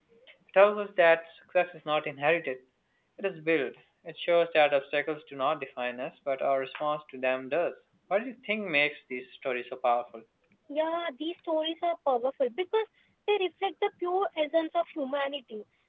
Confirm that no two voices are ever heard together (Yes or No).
Yes